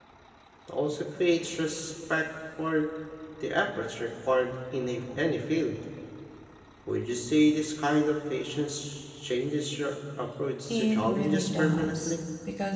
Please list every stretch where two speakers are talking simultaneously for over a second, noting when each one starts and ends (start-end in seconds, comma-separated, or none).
10.7-12.1